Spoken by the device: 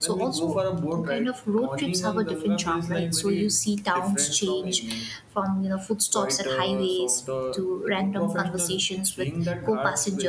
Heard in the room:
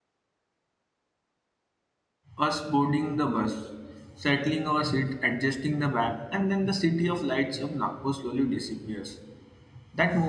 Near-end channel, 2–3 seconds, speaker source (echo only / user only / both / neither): user only